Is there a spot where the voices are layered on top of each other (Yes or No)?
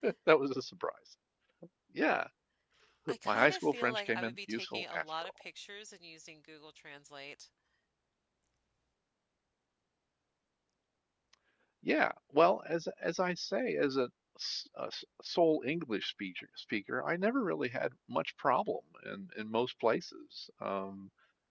Yes